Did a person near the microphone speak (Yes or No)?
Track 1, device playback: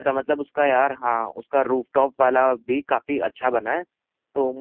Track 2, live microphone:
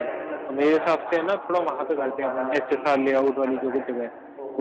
Yes